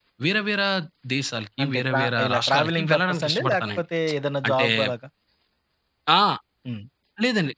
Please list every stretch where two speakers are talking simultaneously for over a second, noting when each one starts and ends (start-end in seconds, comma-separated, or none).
1.6-3.8